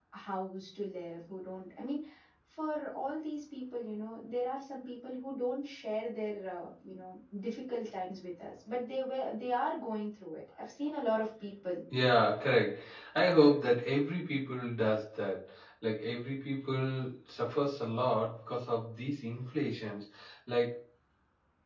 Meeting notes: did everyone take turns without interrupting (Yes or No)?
Yes